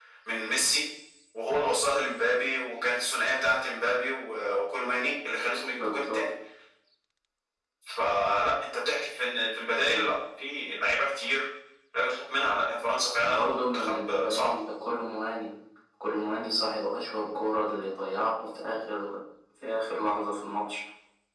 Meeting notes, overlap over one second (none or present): present